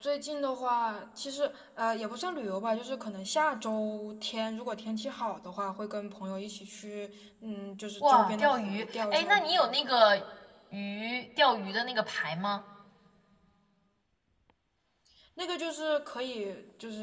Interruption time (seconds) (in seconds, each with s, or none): 8.0 s